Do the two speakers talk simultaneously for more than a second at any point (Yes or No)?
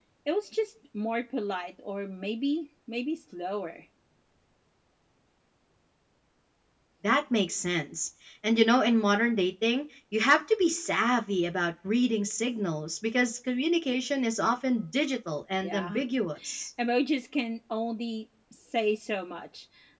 No